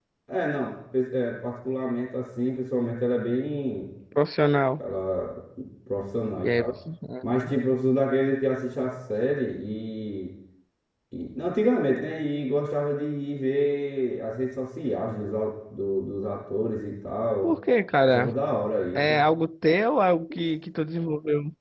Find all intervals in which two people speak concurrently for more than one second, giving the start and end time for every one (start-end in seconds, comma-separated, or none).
none